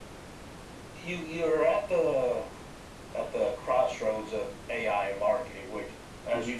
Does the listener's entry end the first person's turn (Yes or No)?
No